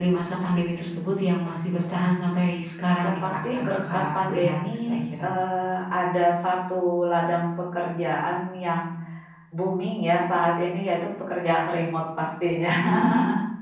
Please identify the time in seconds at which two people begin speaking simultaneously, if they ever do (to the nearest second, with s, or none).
3 s